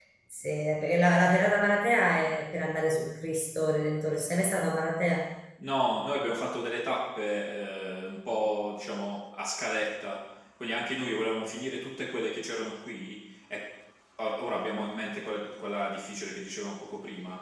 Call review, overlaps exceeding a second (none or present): none